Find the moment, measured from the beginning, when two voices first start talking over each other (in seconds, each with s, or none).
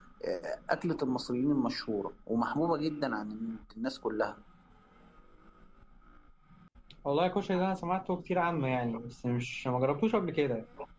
none